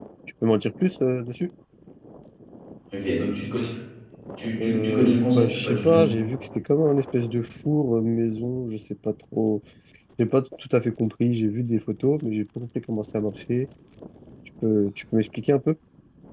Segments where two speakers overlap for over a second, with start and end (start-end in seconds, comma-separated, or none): 4.6-6.1